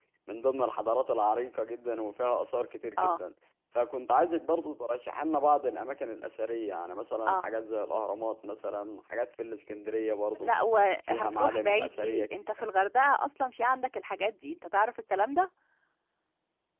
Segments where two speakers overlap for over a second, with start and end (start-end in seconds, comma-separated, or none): 11.1-12.6